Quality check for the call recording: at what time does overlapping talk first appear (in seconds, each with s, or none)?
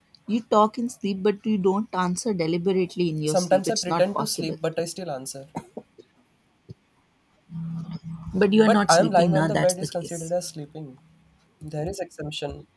3.3 s